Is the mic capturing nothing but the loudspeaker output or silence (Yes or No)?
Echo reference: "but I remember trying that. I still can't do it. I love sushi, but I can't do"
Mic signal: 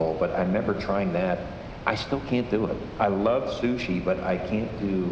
Yes